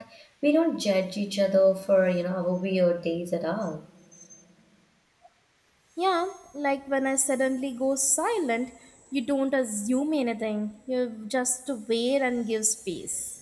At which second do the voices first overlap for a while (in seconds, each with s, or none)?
none